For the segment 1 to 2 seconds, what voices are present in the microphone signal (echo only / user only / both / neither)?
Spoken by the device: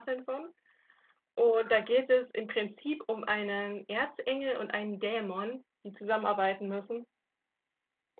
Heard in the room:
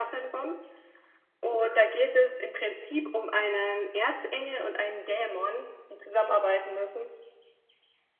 echo only